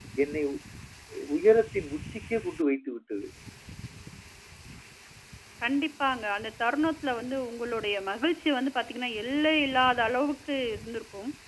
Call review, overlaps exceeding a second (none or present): none